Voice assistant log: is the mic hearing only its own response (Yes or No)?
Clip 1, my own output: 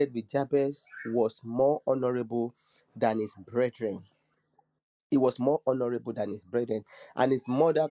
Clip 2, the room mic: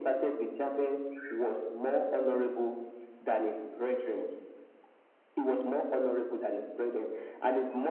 Yes